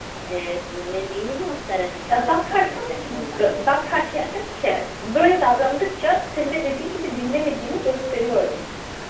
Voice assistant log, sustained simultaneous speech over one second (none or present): present